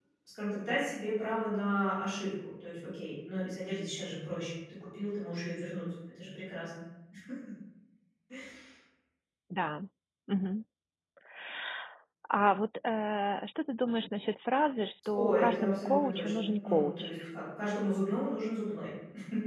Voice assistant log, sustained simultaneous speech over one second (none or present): present